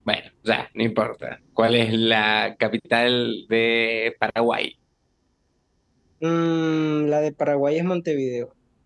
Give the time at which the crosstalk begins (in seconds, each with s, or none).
none